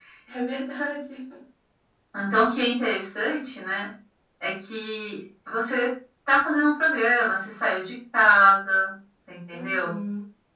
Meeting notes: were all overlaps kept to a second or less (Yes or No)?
Yes